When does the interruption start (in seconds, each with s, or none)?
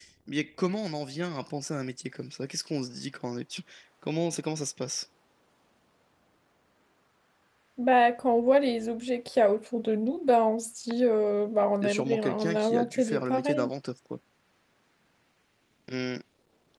11.8 s